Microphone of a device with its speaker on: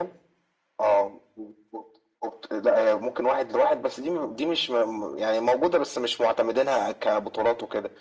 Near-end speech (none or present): none